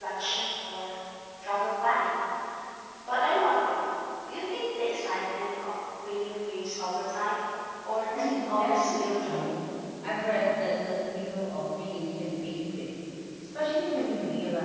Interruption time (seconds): 8.1 s

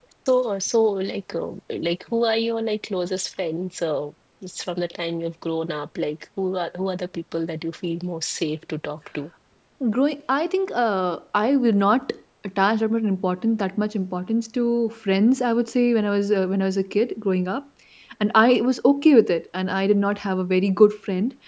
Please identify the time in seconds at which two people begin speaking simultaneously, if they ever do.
none

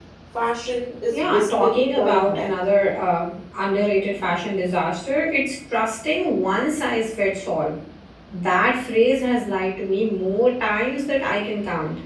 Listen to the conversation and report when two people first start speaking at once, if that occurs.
1.1 s

